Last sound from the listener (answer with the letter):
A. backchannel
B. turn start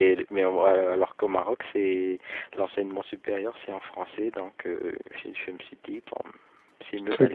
B